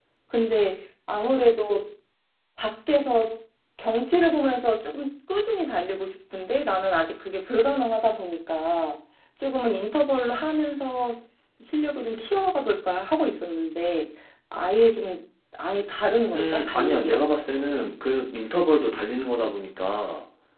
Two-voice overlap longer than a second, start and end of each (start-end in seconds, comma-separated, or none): 16.3-17.9